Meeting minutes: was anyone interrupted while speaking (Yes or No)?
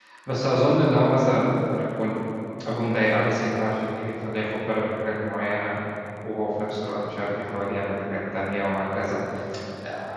No